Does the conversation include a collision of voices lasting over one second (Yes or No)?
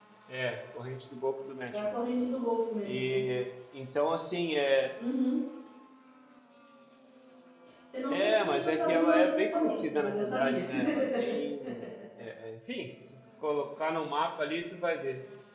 Yes